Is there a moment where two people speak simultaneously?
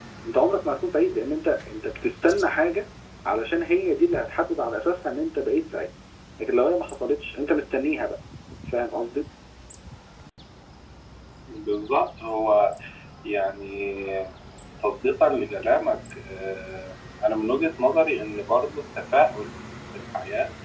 No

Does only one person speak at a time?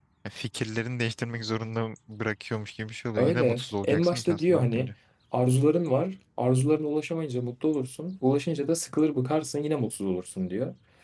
No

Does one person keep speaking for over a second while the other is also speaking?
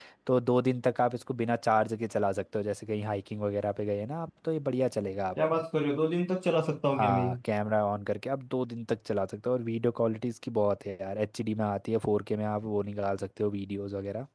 No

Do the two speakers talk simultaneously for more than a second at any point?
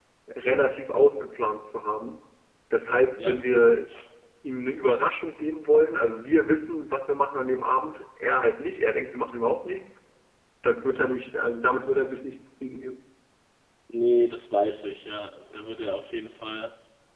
No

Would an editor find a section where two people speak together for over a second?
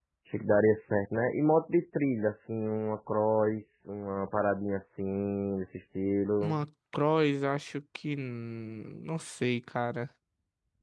No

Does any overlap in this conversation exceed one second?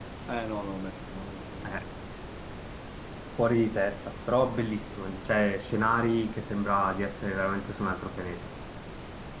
No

